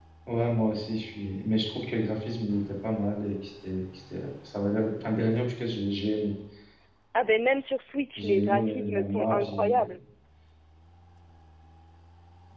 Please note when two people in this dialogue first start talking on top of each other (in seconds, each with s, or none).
8.2 s